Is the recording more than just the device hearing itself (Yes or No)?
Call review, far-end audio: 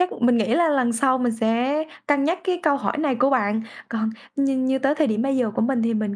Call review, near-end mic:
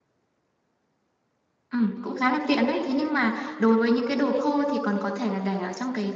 Yes